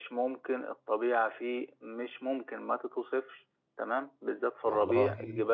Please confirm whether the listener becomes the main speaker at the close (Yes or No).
No